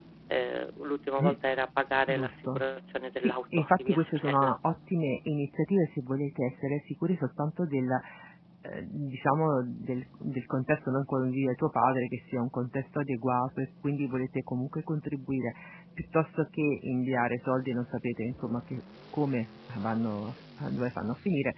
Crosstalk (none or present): present